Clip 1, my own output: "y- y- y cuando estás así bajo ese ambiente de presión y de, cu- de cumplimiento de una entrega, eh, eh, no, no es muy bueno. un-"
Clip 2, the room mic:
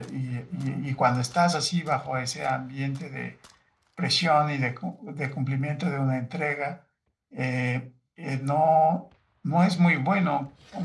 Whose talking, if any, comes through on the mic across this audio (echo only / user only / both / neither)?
echo only